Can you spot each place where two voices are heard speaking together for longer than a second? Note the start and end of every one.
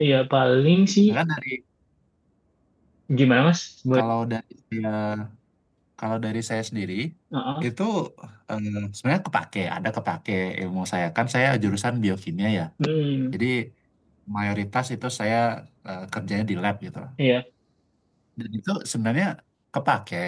none

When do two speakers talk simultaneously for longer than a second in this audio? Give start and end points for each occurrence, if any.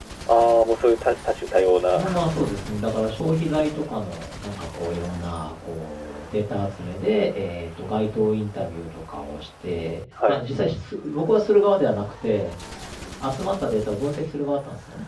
none

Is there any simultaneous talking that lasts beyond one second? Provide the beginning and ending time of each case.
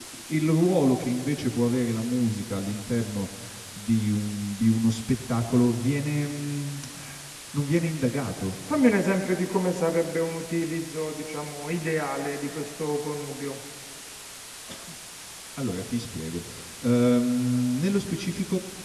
none

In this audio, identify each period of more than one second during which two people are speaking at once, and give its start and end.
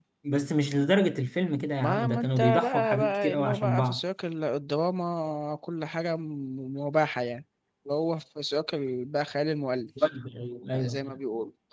1.8-4.0

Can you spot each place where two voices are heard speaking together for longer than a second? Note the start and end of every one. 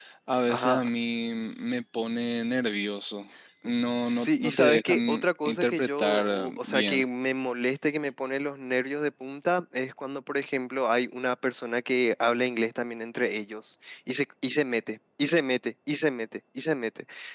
4.2-7.0

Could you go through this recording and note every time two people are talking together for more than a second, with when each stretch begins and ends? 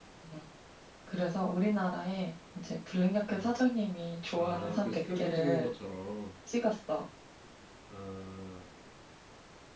4.4-5.7

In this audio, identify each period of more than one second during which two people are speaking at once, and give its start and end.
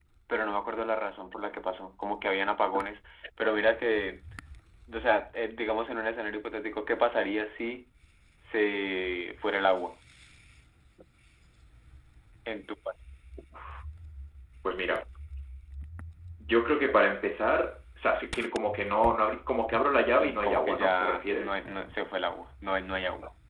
20.1-21.6

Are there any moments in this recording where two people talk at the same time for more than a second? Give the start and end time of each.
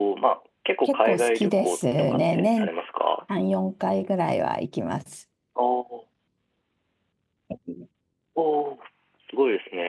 0.8-2.7

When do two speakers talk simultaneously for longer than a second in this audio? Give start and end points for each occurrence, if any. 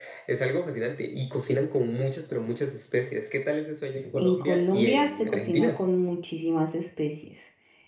4.2-5.8

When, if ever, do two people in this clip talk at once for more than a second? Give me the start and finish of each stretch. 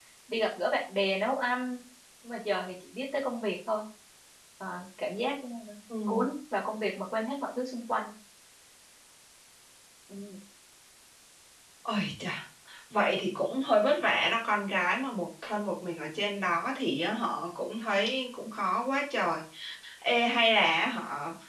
none

